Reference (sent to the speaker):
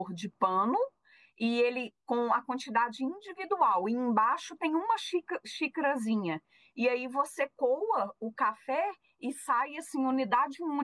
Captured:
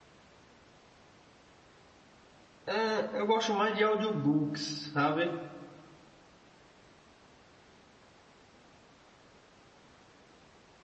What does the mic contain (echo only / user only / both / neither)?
user only